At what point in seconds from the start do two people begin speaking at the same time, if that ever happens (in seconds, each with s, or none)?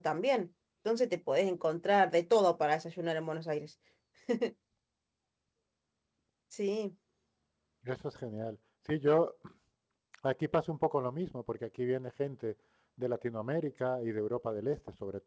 none